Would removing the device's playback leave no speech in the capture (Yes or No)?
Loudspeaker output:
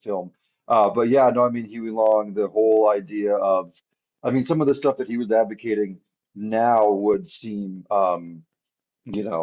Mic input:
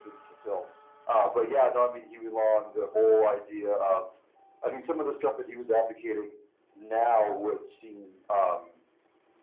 Yes